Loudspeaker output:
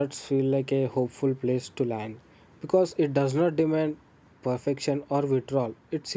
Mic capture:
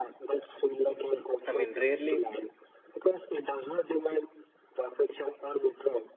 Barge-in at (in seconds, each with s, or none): 1.5 s